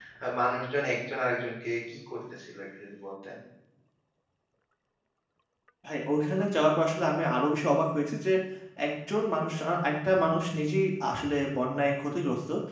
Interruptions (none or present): none